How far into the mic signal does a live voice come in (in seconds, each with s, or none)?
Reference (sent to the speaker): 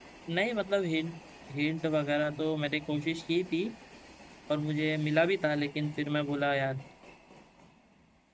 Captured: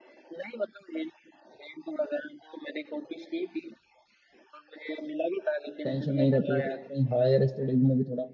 5.8 s